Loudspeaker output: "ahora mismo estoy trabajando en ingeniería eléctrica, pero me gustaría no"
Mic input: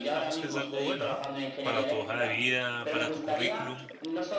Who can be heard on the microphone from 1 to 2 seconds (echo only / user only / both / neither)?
both